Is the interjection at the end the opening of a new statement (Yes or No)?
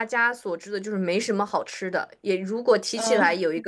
No